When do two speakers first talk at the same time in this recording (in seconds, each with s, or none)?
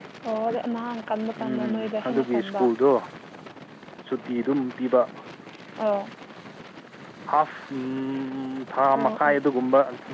1.4 s